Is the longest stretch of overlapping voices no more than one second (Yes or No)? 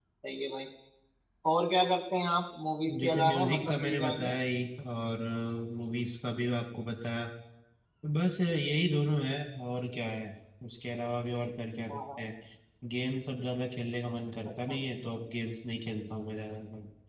No